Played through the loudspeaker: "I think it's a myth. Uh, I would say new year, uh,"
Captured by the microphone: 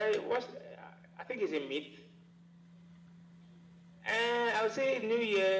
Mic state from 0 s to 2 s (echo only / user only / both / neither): echo only